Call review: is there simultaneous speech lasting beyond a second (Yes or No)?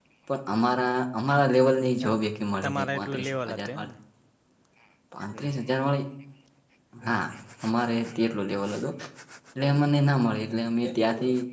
Yes